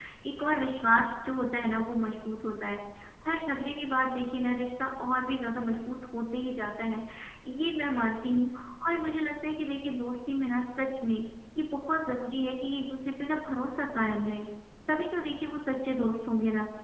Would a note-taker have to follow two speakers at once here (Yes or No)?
No